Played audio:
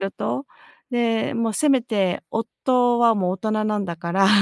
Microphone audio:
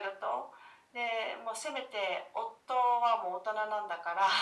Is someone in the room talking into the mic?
No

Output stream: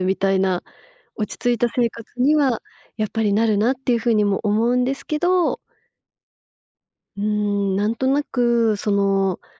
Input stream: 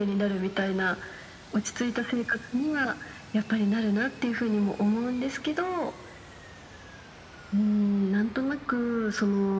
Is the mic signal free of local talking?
Yes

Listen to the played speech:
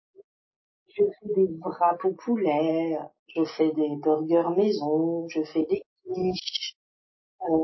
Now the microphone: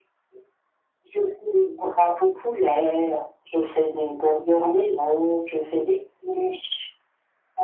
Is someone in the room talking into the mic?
No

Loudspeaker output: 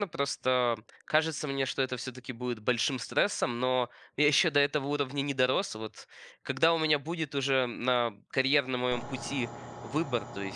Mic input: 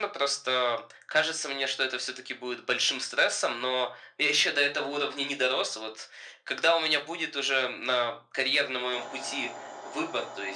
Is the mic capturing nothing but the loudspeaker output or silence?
Yes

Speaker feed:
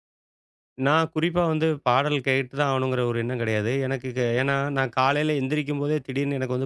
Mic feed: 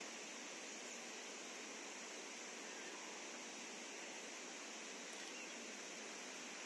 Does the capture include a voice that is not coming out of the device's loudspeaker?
No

